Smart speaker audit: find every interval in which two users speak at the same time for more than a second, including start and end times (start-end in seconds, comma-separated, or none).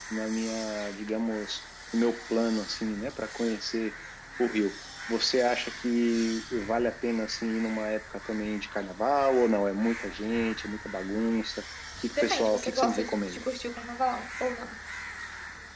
12.2-13.4